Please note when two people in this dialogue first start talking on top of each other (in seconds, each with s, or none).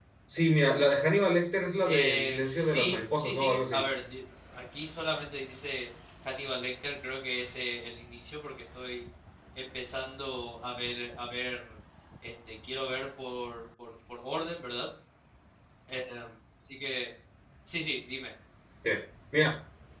1.8 s